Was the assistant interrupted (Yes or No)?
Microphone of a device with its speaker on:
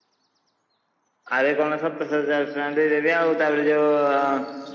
No